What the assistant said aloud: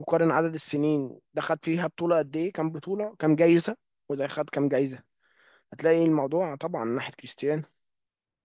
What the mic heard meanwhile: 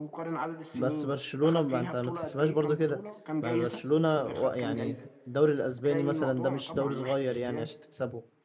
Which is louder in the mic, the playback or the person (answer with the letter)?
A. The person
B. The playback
A